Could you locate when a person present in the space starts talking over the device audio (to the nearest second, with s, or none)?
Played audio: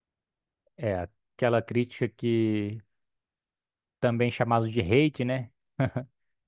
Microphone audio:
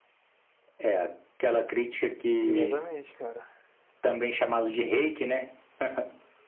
2 s